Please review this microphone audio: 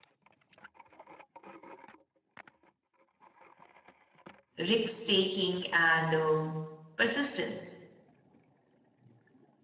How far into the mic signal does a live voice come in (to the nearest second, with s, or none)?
5 s